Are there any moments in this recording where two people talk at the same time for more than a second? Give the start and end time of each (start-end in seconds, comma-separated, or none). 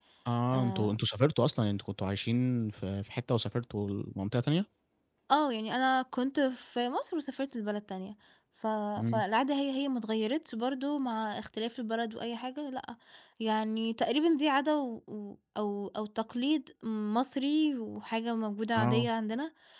none